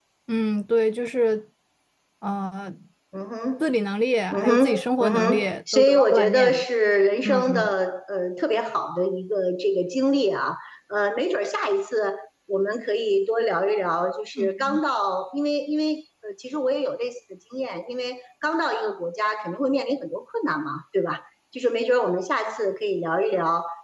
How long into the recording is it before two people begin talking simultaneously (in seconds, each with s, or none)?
4.4 s